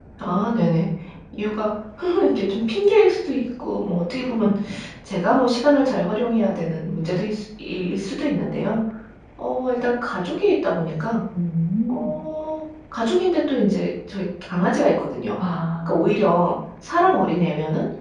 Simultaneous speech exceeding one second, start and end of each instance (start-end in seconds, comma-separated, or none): none